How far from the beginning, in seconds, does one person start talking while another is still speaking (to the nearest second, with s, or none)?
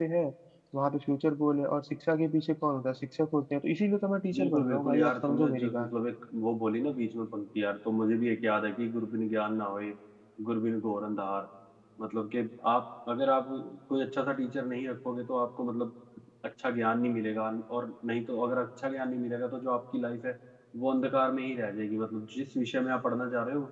4 s